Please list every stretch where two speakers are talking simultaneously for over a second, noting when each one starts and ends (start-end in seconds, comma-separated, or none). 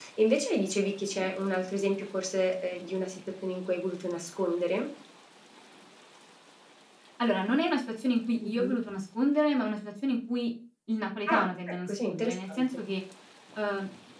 11.3-12.6